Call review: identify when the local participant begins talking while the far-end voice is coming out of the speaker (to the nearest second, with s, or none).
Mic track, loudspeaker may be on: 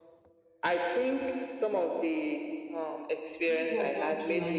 3 s